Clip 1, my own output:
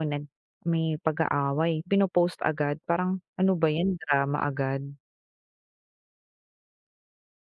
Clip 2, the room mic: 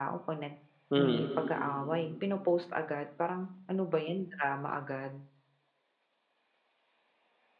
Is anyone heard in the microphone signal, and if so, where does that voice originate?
both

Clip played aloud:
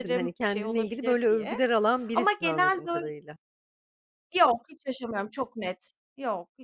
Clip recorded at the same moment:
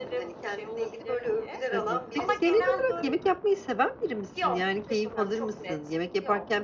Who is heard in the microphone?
both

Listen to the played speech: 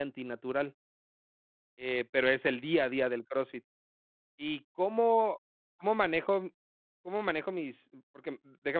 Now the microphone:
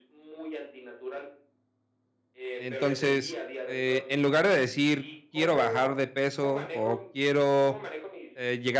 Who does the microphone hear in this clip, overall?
both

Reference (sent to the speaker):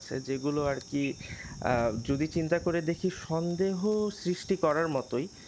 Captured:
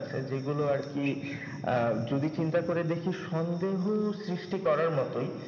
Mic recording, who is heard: echo only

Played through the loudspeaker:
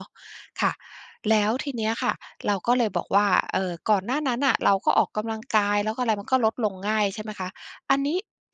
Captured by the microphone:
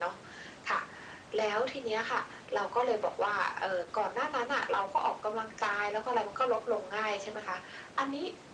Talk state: echo only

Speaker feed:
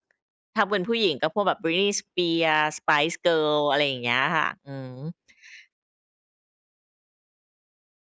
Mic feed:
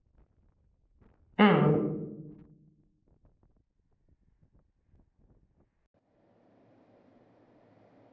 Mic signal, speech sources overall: user only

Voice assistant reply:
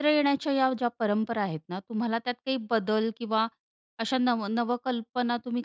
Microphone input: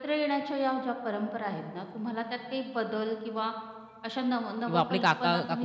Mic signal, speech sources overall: both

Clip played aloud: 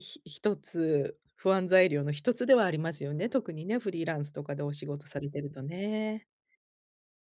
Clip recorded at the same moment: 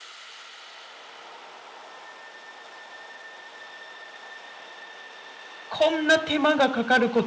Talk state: user only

